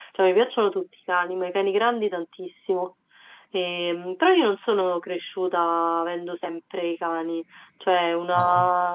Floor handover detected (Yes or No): No